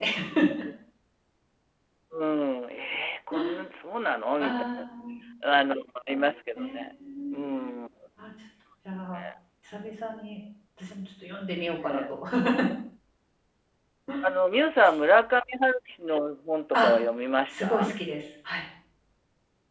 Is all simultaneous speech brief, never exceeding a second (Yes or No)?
Yes